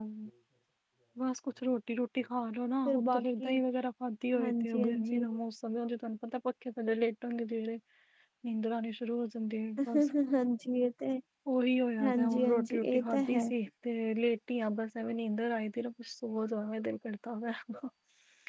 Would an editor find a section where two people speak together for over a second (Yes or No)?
Yes